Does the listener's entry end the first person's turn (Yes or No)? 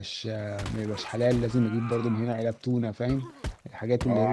Yes